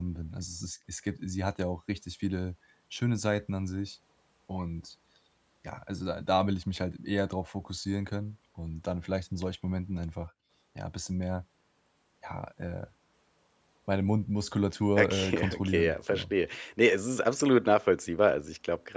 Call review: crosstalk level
present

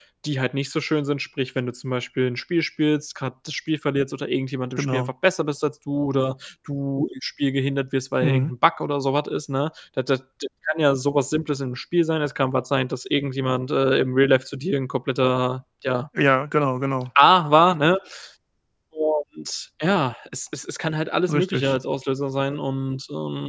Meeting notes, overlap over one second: none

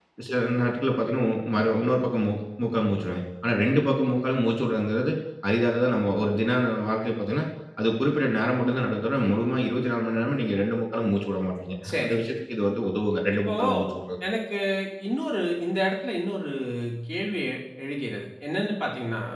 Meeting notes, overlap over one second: none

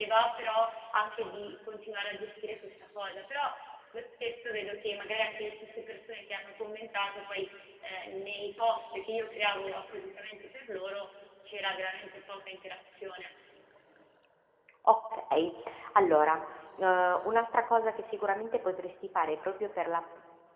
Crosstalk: none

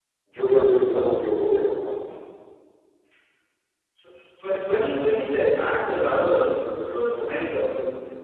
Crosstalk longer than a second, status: none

